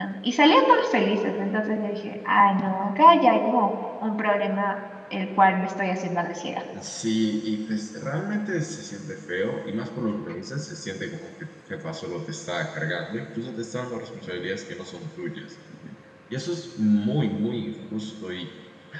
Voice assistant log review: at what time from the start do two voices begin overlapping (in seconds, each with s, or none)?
none